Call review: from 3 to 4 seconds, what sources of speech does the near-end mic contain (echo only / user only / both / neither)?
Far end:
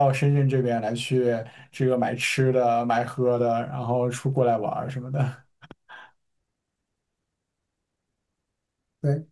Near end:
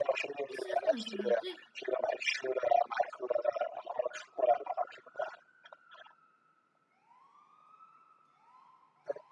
echo only